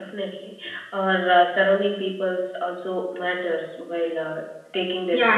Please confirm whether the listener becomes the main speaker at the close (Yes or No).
Yes